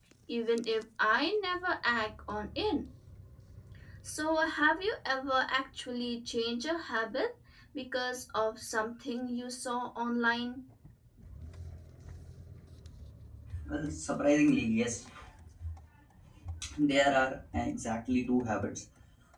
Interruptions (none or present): none